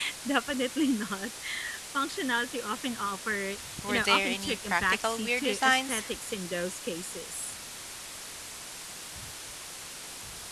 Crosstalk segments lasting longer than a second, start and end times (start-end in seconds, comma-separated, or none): 3.9-6.0